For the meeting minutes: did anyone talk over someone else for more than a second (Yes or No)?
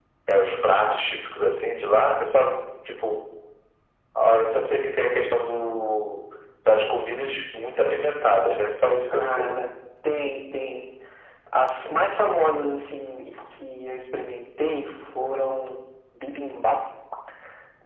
No